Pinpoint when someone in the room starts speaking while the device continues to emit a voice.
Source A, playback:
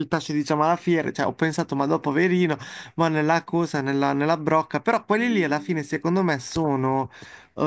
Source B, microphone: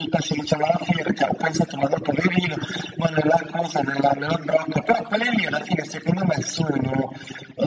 none

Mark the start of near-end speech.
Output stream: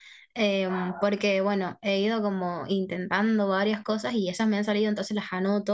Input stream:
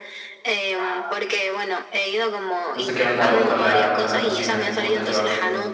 2.7 s

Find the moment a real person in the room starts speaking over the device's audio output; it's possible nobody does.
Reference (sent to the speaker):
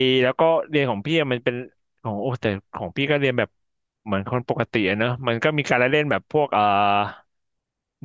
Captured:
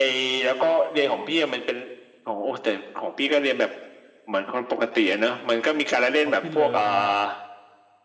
6.2 s

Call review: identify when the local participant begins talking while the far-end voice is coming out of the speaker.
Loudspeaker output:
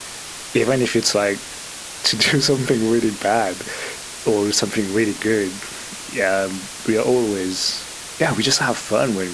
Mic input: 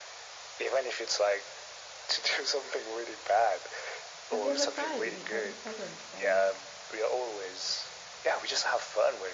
4.3 s

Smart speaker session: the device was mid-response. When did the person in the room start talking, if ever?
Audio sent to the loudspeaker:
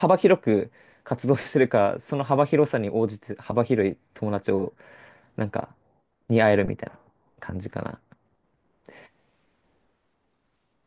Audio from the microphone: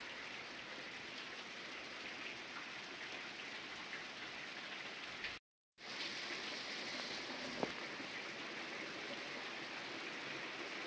none

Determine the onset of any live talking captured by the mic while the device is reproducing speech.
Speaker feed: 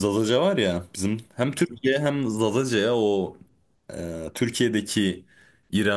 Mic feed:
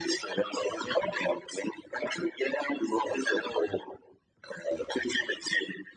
none

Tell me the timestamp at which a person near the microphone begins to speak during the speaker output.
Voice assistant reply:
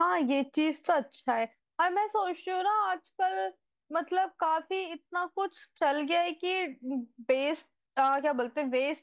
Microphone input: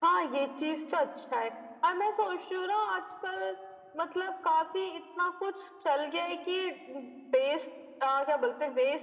none

